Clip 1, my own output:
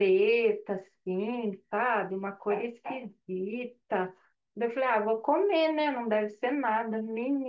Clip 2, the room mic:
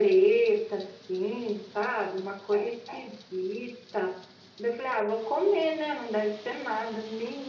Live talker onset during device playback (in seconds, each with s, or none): none